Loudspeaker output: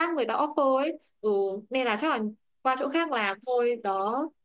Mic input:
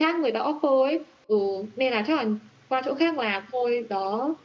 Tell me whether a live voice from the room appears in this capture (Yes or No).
No